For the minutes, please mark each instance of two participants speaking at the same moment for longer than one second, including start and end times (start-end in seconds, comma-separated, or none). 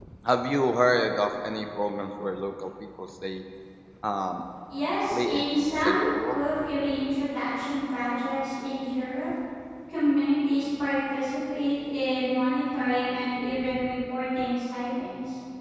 5.1-6.4